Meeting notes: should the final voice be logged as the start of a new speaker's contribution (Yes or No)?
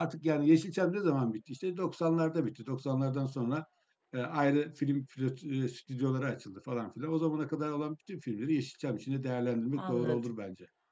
Yes